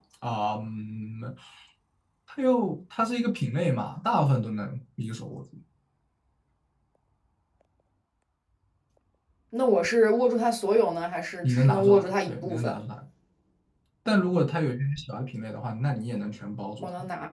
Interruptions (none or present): present